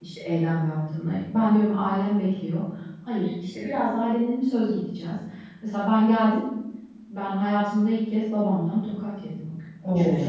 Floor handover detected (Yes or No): No